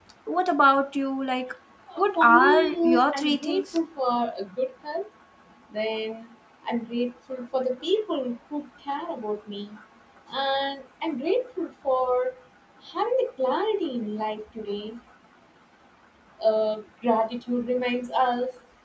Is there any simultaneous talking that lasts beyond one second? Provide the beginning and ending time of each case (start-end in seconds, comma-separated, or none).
2.0-3.8